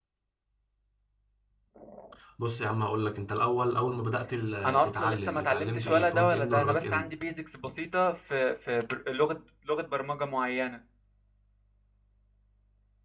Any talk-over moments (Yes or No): Yes